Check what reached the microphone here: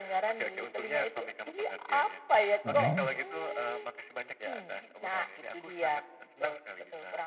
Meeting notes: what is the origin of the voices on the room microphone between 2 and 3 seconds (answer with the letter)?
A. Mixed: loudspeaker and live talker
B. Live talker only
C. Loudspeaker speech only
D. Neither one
A